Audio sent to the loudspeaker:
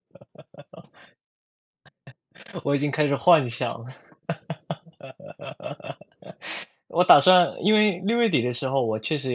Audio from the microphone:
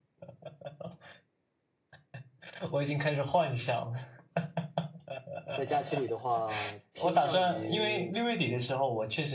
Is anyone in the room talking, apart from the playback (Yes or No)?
Yes